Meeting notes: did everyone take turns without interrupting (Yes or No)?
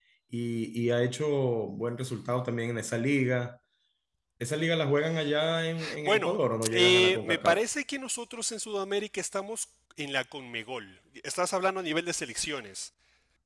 No